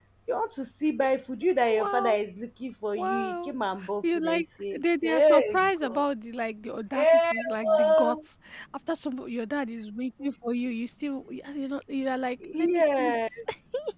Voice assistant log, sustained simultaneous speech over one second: present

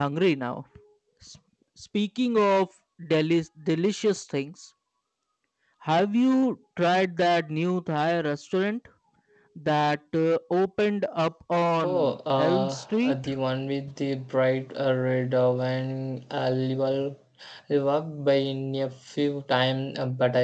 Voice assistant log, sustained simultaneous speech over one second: present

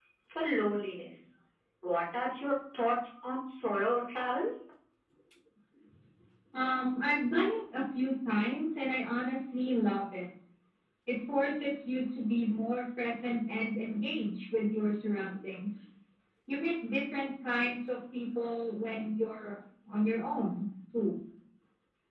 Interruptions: none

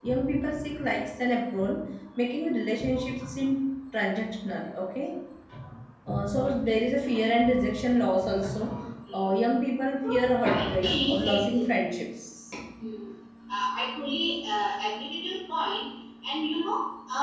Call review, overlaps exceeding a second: present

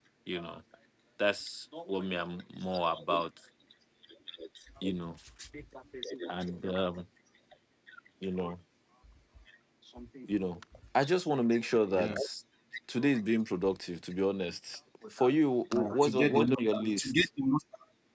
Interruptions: present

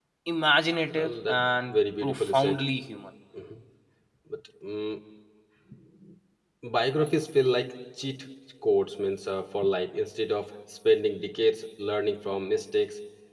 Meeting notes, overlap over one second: present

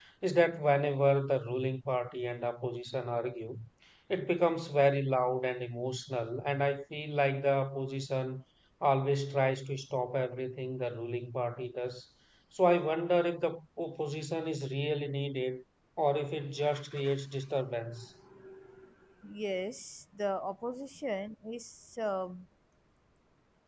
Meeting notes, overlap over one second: none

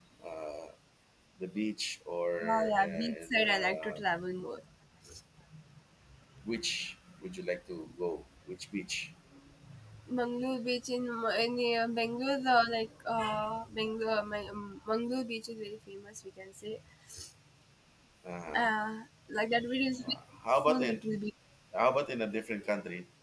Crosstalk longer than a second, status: present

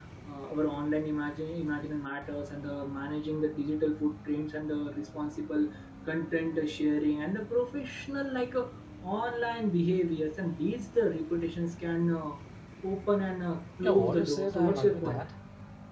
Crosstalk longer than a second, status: present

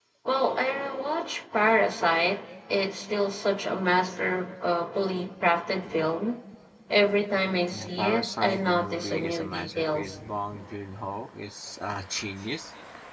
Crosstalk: present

